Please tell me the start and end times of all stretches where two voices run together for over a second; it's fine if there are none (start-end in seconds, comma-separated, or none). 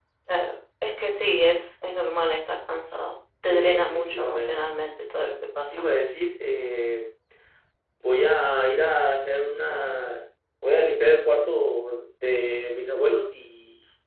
3.4-4.7